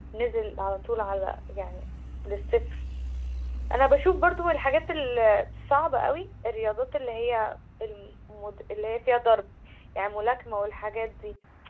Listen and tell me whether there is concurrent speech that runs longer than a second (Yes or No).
No